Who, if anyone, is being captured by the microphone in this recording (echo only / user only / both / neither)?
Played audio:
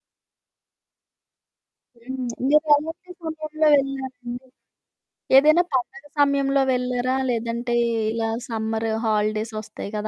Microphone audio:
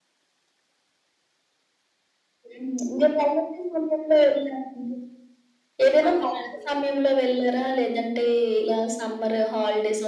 both